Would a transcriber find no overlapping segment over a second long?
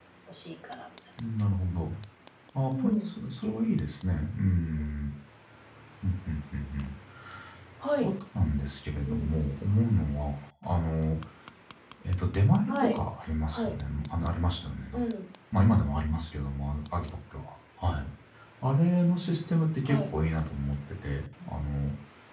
Yes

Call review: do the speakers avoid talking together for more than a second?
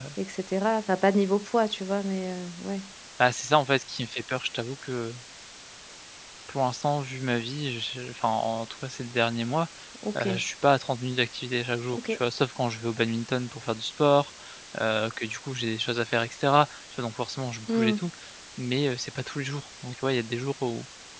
Yes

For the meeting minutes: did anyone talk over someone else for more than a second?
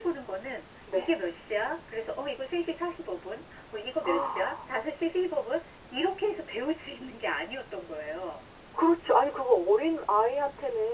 No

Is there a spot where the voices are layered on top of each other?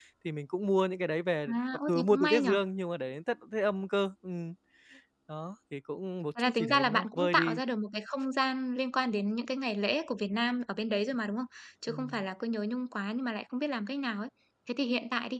Yes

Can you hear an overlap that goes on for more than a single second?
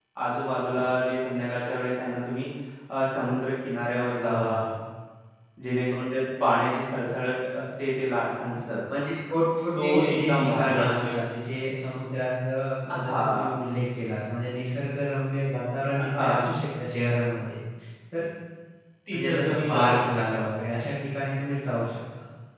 Yes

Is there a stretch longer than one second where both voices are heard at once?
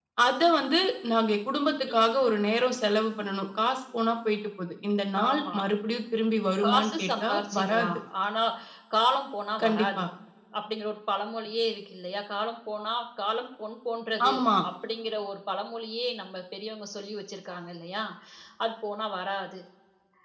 Yes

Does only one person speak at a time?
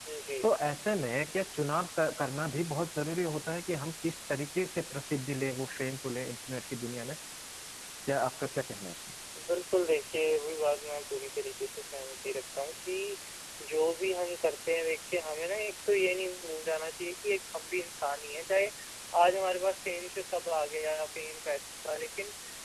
Yes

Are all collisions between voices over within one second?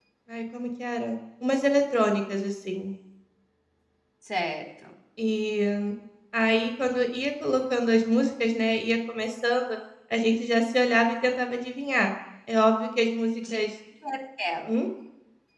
Yes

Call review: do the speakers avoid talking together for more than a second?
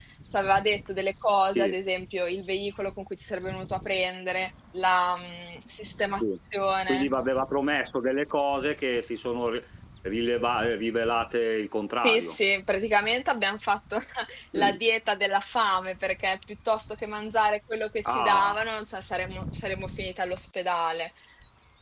Yes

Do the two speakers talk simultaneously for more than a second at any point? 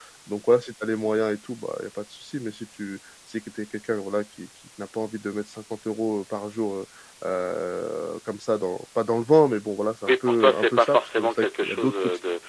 Yes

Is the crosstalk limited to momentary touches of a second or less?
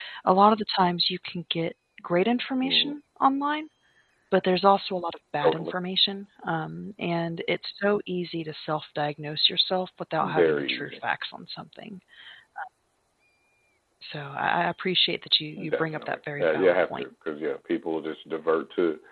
No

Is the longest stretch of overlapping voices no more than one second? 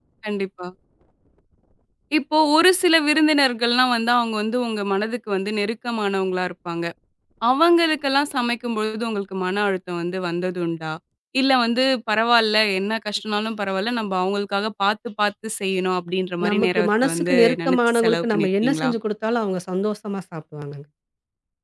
No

